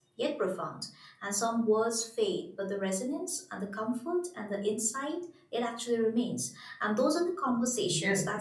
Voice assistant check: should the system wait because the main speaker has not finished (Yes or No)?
Yes